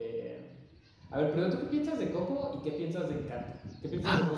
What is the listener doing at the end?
listening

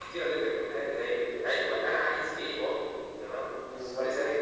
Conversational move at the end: listening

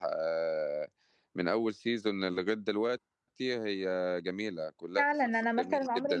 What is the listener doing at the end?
taking over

